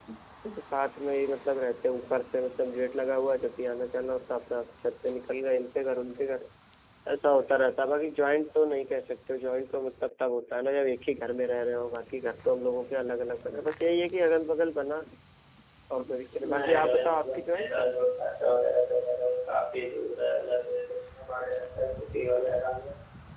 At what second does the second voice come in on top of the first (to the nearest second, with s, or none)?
16 s